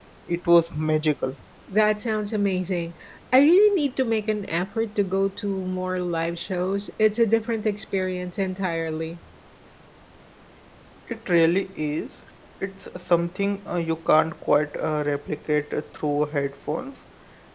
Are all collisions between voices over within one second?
Yes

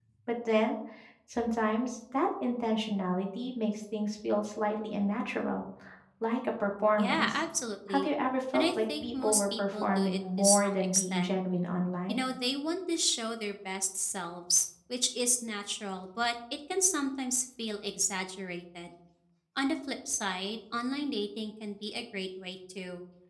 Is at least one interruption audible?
Yes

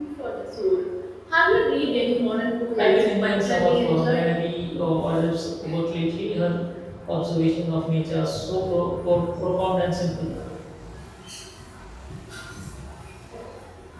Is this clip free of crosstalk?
No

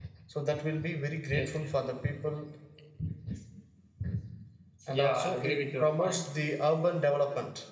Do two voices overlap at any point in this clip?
Yes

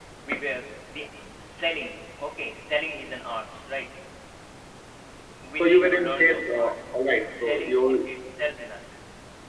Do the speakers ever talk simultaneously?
Yes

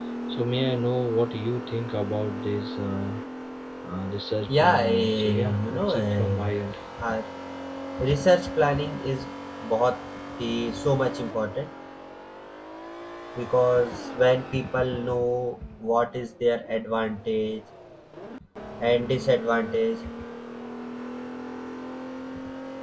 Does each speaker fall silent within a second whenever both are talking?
No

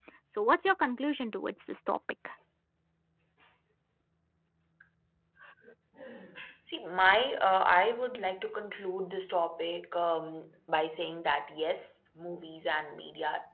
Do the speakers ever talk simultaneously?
No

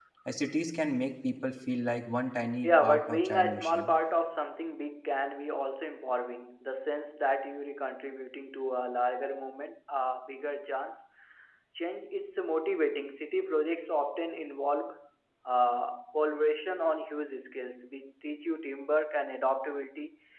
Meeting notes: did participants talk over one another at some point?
Yes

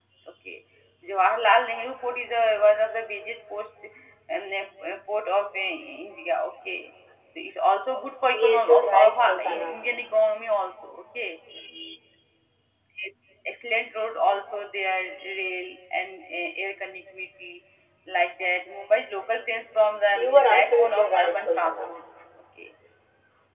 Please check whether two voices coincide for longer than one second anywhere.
Yes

